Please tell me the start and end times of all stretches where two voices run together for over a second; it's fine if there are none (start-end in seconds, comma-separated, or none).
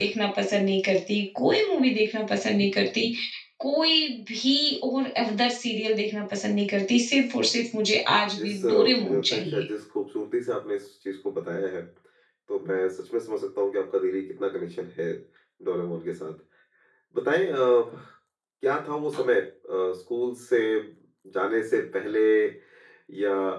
8.4-9.6